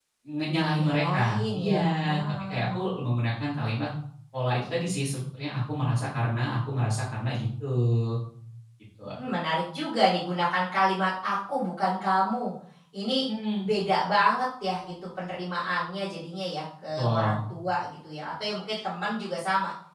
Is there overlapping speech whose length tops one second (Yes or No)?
Yes